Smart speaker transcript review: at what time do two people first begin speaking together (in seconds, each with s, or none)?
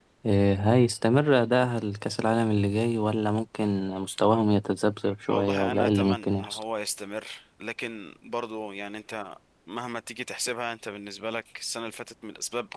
5.3 s